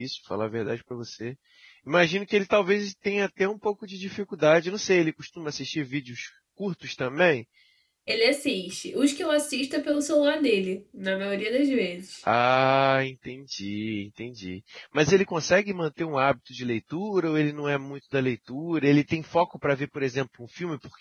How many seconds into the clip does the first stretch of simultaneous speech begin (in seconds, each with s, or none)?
none